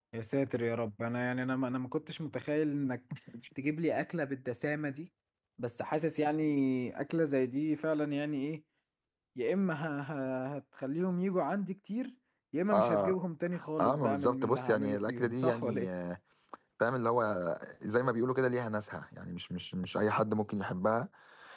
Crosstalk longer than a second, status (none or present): present